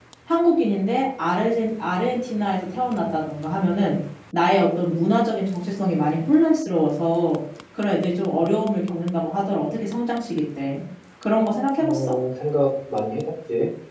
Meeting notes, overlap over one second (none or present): none